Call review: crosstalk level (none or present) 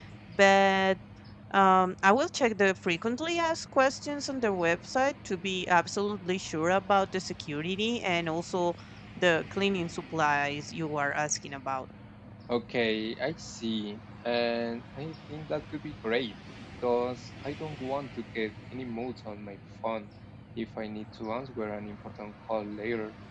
none